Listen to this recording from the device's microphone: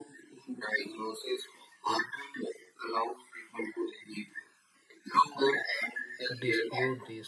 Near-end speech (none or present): present